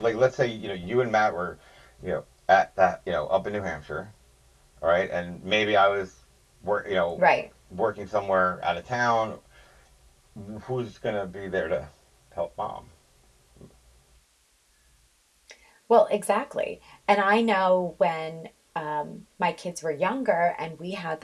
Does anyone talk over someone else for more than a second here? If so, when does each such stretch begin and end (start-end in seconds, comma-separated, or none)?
none